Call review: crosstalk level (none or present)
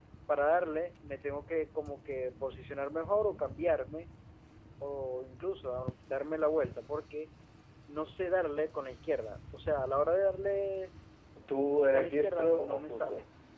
present